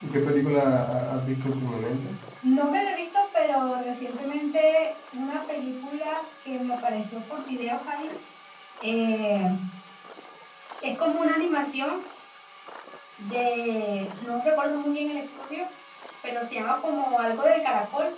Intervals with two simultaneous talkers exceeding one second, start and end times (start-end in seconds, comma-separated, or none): none